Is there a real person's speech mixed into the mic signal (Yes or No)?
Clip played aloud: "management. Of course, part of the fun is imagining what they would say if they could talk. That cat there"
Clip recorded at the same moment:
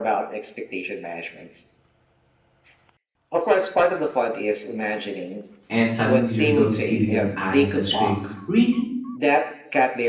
Yes